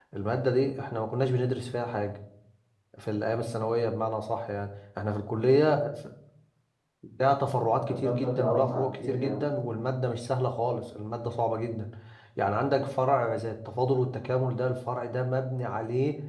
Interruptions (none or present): present